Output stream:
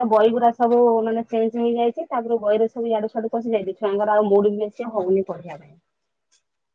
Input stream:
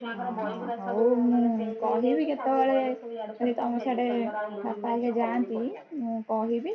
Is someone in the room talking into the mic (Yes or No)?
Yes